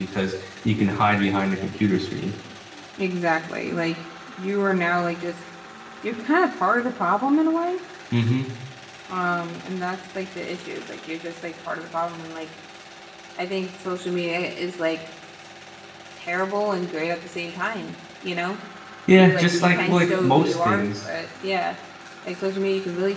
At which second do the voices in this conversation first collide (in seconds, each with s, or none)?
19.1 s